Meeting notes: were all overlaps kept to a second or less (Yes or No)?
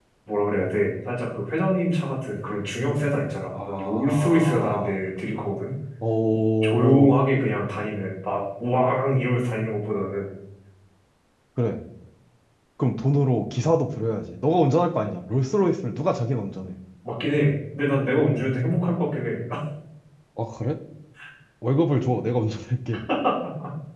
No